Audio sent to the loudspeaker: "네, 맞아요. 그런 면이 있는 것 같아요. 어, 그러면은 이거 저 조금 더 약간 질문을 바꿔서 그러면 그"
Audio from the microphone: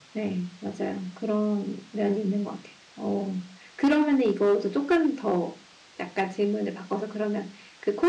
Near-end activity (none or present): none